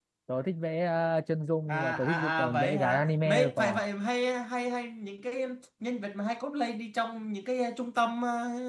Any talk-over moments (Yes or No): Yes